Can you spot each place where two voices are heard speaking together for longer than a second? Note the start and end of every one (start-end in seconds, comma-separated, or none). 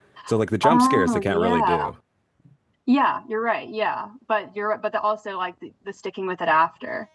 0.6-1.9